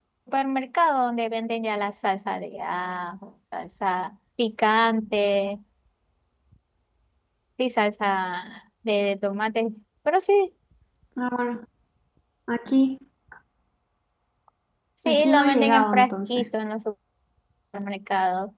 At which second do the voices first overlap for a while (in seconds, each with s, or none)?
15.0 s